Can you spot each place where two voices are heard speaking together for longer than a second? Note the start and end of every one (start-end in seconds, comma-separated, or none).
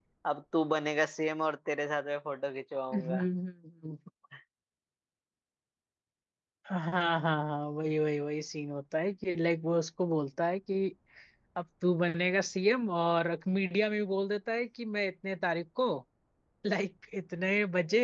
none